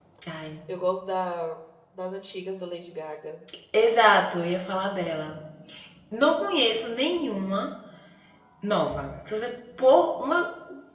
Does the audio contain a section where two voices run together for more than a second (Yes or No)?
No